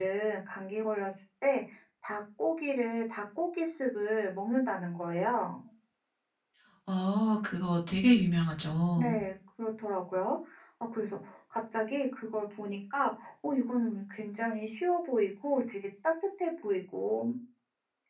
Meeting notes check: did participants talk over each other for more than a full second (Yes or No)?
No